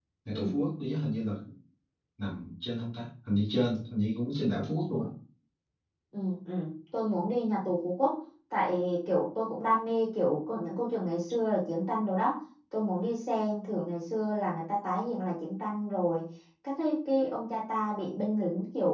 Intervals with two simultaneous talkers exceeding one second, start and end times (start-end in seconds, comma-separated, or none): none